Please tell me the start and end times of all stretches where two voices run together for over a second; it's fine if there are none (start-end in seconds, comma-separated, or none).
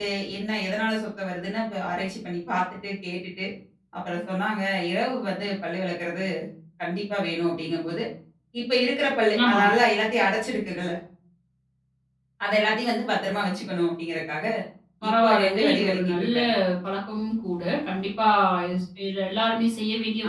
15.1-16.3